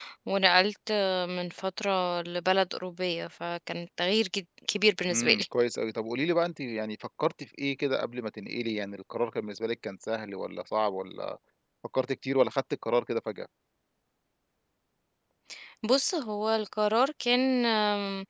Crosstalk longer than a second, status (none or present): none